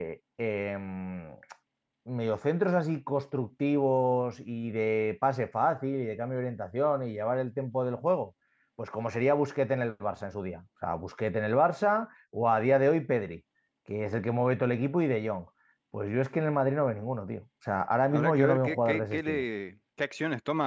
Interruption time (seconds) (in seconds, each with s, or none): 18.1 s